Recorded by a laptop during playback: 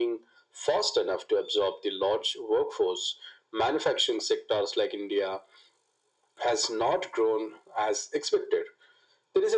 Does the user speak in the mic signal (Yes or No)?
No